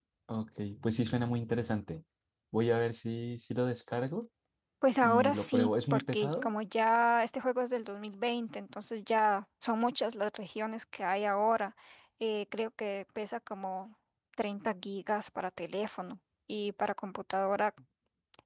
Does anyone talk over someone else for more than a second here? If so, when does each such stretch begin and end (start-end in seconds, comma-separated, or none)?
5.0-6.5